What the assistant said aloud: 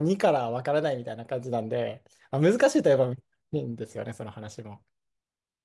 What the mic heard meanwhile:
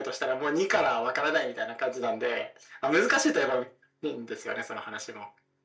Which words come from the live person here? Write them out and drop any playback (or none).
none